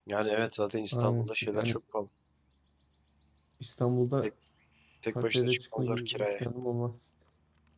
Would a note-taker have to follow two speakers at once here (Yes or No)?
Yes